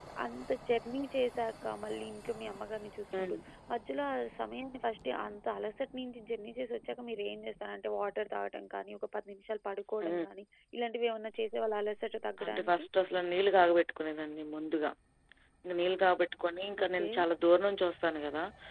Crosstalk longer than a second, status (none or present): none